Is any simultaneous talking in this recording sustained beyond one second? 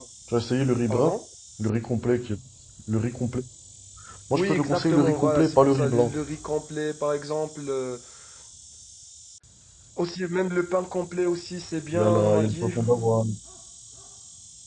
Yes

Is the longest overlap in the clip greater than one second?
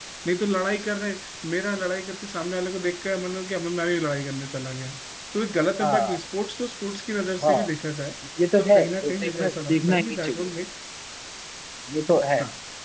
Yes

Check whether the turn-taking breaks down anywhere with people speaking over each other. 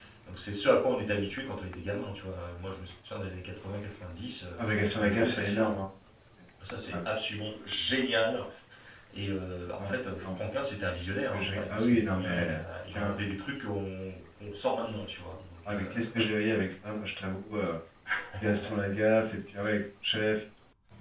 Yes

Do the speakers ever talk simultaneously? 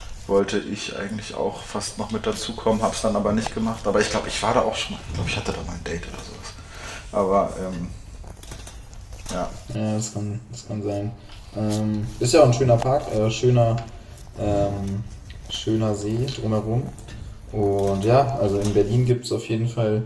No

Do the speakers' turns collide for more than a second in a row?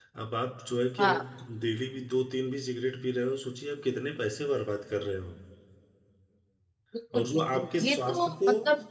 Yes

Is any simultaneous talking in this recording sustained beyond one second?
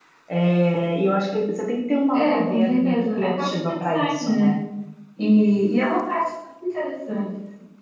Yes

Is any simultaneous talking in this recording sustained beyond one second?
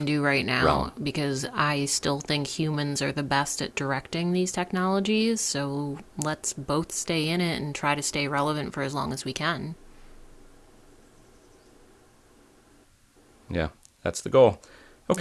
No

